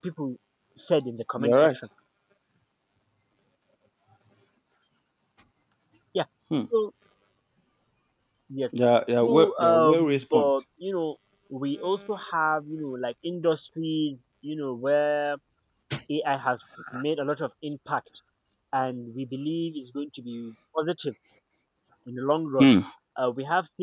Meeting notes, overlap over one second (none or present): present